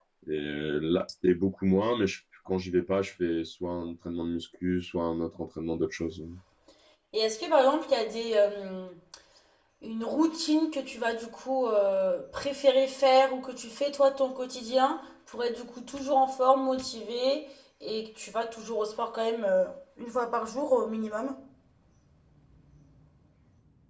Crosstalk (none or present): none